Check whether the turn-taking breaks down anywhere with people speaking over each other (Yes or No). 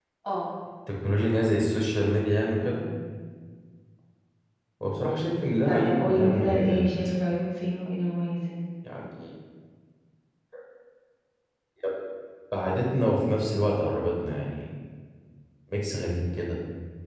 Yes